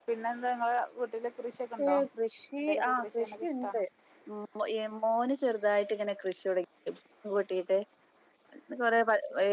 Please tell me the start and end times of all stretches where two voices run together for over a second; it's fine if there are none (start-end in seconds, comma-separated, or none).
2.6-3.8